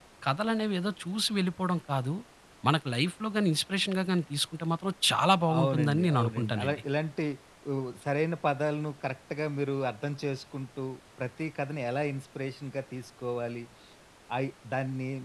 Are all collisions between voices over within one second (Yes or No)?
No